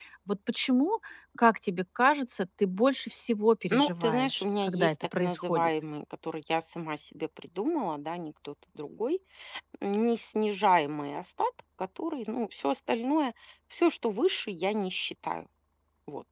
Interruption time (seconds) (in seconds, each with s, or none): 3.7 s